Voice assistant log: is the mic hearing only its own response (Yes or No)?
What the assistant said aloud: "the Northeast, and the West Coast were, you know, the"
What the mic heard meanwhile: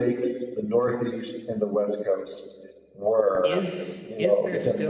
No